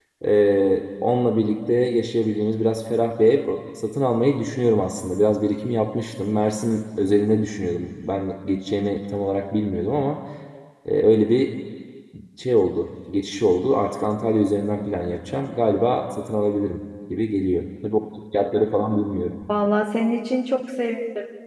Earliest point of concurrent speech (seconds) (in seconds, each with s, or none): none